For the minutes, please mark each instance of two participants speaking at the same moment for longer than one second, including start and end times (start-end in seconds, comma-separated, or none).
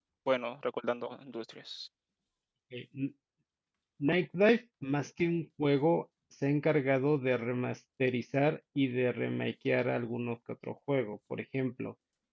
none